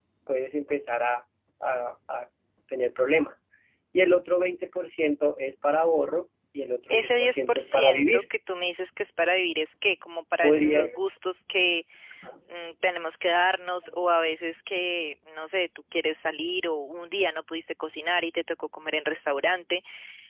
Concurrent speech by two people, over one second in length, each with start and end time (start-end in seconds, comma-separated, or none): 6.9-8.2